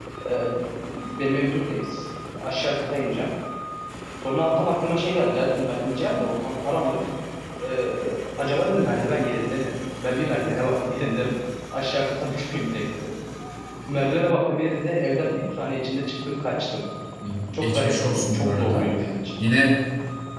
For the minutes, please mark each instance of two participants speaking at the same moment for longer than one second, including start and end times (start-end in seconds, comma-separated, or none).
17.5-18.9